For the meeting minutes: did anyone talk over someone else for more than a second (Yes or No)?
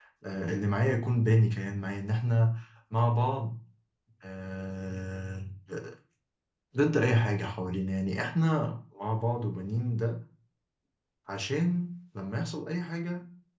No